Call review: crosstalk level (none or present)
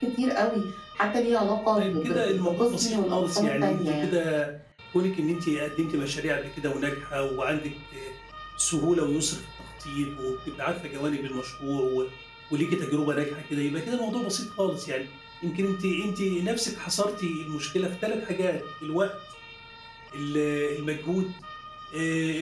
present